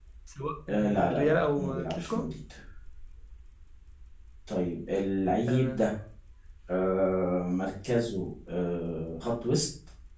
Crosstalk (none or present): present